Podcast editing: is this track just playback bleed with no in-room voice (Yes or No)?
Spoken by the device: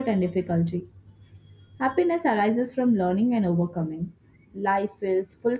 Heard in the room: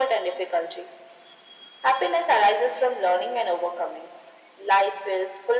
Yes